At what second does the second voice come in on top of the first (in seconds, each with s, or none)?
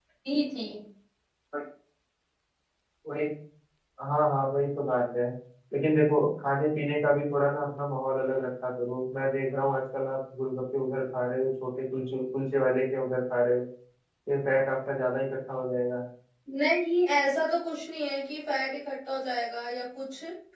none